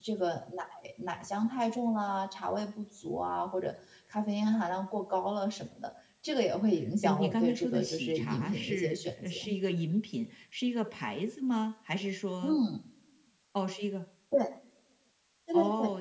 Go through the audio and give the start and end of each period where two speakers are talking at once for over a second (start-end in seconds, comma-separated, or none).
7.0-9.4